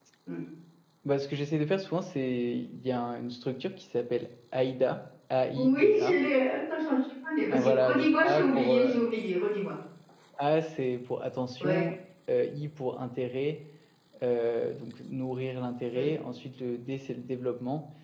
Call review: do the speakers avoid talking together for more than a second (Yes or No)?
No